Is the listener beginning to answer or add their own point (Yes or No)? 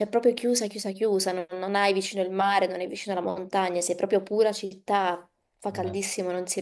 No